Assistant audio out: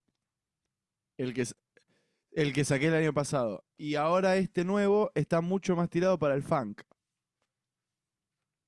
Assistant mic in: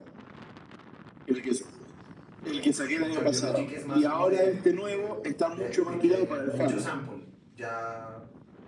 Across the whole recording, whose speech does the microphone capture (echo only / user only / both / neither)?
both